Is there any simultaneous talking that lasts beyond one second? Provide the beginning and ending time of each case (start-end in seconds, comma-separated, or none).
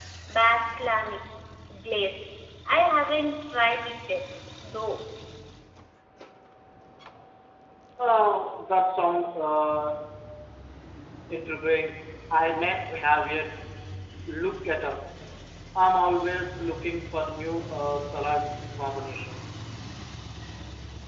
none